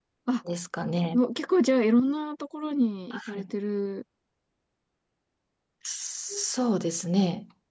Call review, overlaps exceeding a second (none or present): none